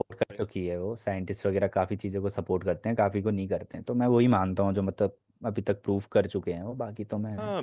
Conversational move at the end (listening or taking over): taking over